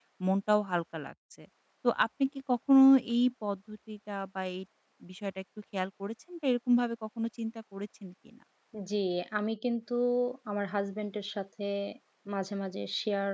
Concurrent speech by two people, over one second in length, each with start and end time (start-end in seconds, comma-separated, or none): none